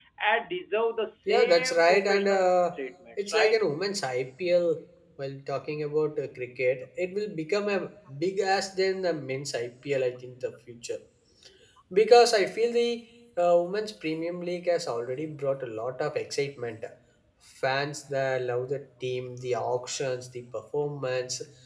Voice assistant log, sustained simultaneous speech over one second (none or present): present